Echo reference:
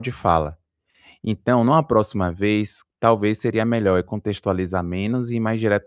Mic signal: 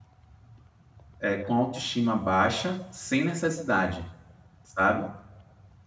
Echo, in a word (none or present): none